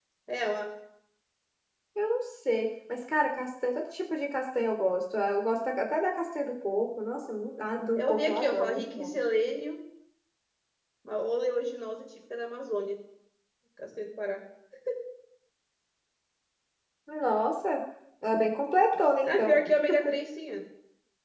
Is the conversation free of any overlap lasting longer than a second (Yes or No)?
No